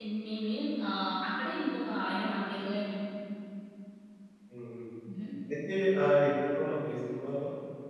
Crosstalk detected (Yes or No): No